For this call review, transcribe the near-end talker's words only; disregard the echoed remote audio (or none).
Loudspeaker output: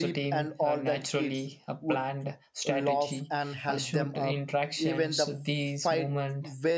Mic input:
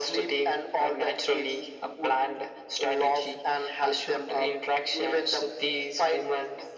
none